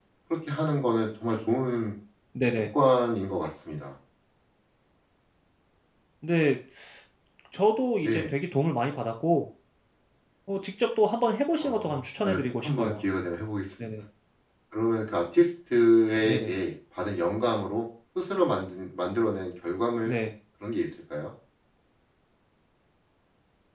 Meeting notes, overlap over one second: present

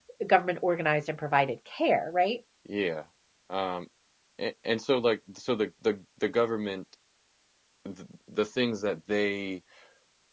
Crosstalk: none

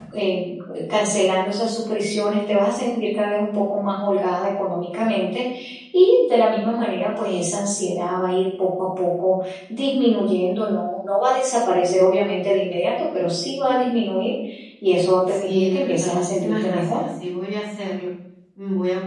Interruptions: present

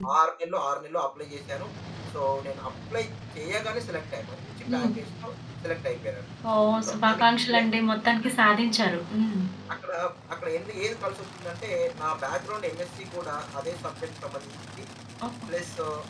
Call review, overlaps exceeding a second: none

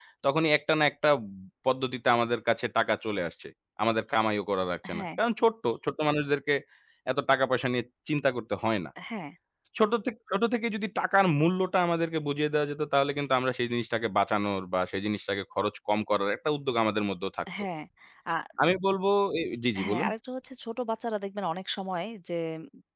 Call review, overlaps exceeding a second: none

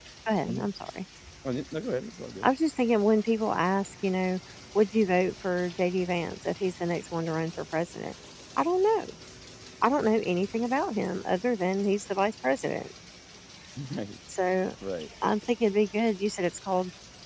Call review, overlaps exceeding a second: none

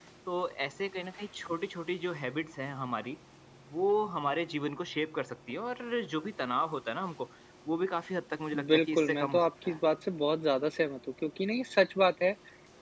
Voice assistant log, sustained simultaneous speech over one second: present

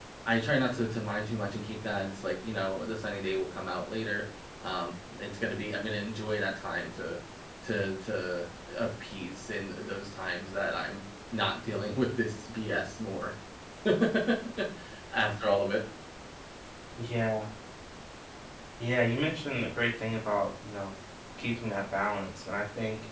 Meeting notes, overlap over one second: none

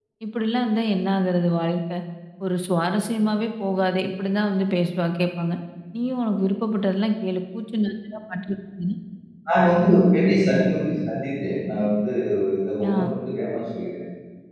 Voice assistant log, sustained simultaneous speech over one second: none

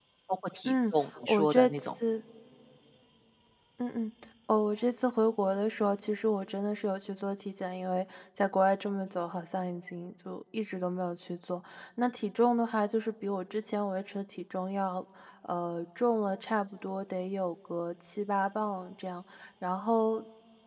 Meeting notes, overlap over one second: present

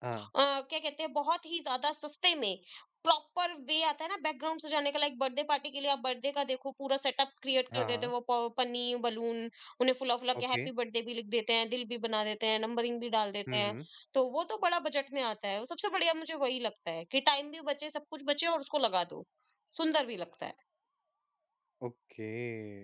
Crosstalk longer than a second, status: none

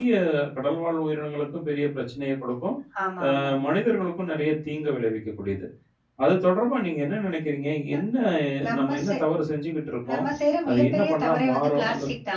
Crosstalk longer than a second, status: present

